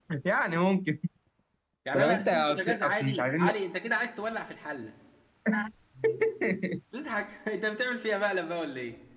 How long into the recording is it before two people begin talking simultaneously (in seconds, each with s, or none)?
1.9 s